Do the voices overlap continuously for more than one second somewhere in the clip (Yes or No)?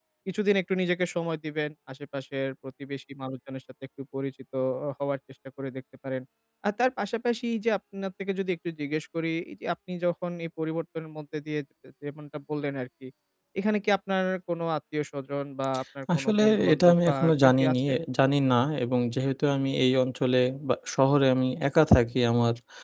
Yes